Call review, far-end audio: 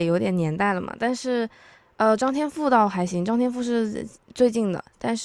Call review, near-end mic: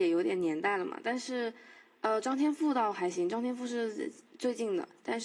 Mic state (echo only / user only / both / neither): echo only